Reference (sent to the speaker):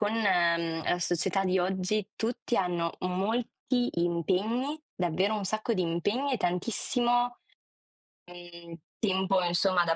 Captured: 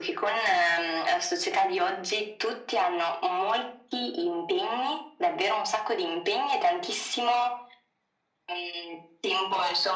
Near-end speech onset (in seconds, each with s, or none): none